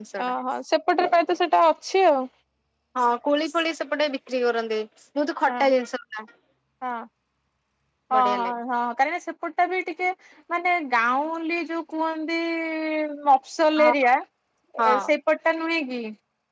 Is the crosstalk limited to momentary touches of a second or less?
Yes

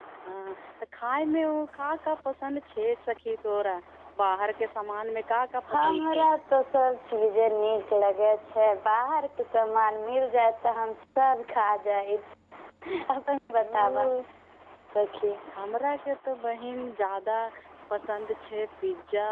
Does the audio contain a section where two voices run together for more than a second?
No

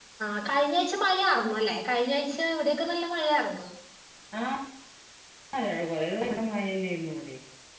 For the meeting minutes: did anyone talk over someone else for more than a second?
No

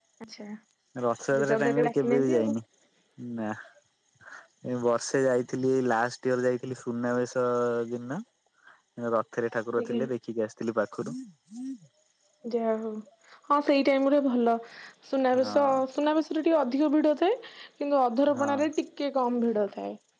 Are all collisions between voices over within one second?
No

